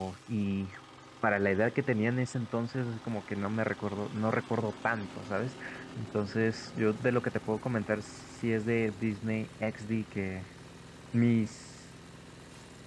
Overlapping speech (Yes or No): No